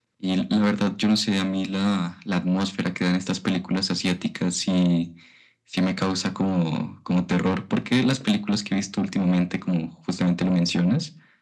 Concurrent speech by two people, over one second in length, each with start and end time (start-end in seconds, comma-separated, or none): none